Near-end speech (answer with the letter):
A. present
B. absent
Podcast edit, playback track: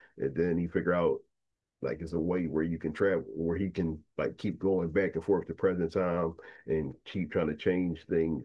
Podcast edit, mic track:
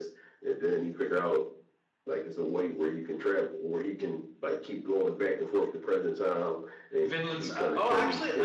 A